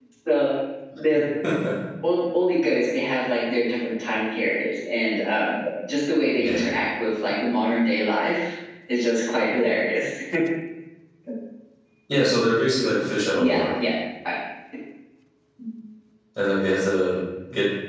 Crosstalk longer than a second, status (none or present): none